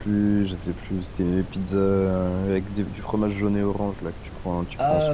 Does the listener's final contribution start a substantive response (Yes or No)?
Yes